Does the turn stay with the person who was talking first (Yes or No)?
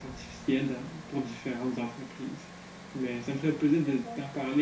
Yes